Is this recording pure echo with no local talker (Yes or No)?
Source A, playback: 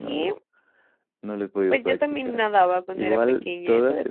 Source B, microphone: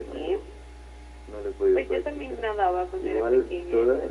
Yes